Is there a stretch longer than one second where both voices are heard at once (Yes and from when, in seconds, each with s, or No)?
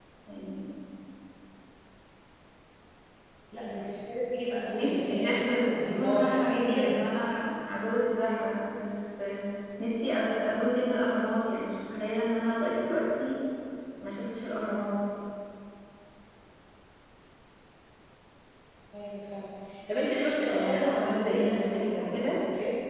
Yes, from 4.7 s